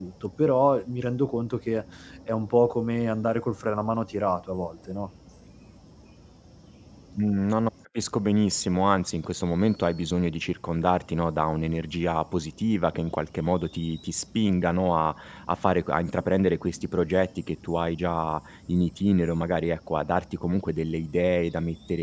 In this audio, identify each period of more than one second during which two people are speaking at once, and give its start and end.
none

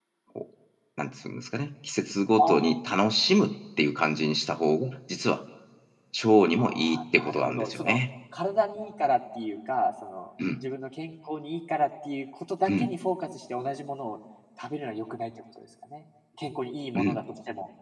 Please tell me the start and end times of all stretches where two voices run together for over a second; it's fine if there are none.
6.6-8.0

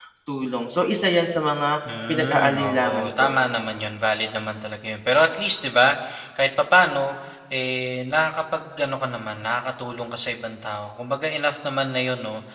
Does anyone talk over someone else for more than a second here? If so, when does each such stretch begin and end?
2.1-3.4

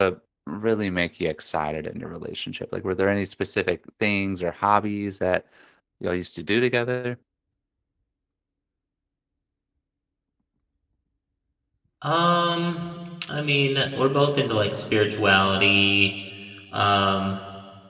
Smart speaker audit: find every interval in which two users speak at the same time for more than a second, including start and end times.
none

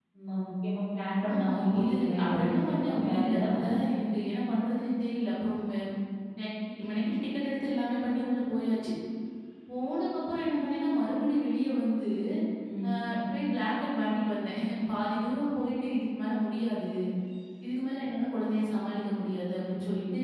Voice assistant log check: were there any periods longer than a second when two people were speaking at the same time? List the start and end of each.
1.3-3.7

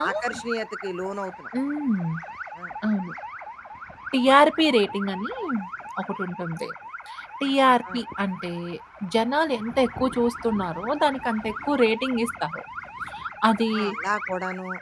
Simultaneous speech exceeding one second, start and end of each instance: none

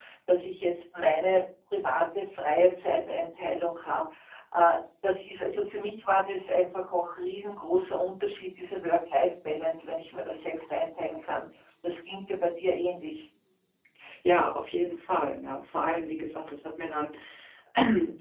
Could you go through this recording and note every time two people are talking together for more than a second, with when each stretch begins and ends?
none

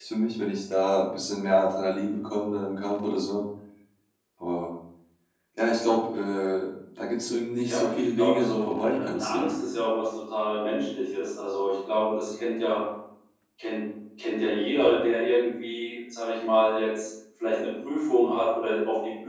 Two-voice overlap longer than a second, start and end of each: 7.6-9.5

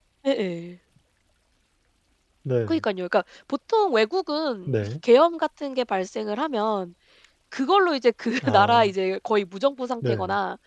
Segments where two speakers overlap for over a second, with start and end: none

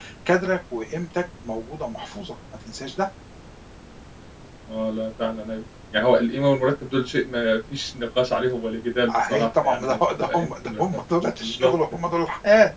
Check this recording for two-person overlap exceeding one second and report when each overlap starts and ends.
9.1-10.8

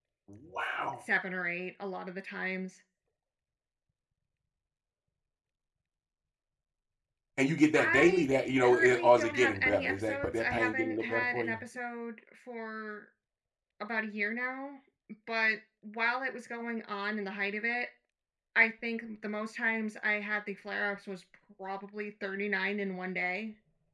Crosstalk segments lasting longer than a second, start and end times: 8.6-11.6

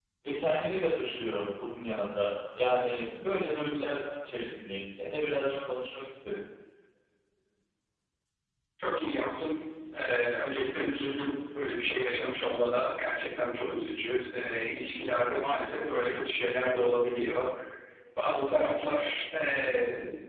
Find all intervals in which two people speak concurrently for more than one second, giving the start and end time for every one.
none

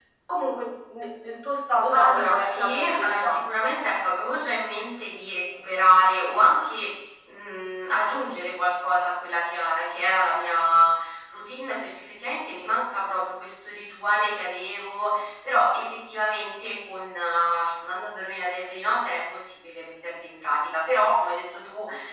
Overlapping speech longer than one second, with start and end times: 1.9-3.4

